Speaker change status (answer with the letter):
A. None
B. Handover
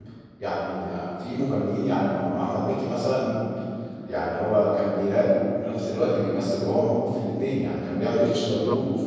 A